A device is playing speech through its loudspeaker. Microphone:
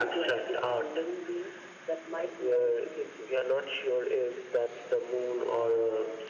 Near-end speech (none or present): none